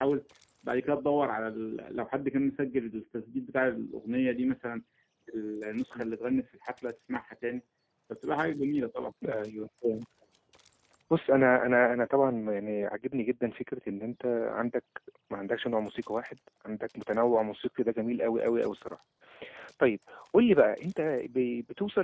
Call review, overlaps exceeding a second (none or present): none